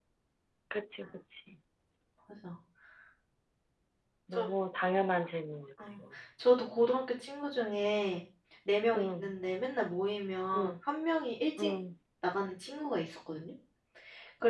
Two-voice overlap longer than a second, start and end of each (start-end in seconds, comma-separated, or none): none